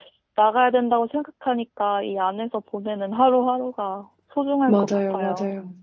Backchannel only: No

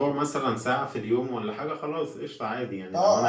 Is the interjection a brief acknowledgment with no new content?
No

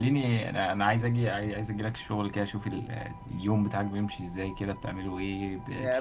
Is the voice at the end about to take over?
Yes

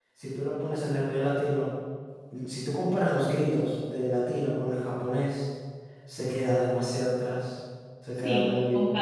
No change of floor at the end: No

